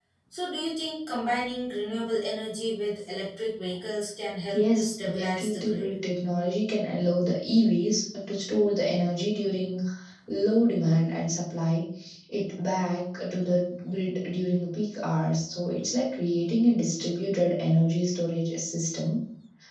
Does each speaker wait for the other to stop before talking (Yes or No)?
No